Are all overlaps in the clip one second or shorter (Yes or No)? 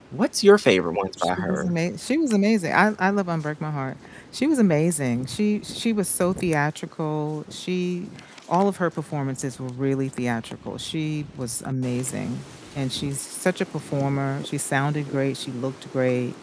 Yes